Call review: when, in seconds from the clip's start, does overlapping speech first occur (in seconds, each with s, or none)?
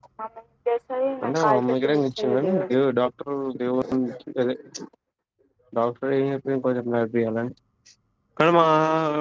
1.2 s